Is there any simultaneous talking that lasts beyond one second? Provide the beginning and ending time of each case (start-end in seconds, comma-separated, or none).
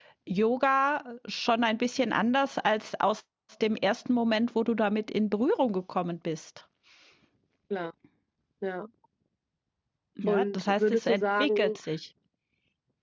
10.3-11.8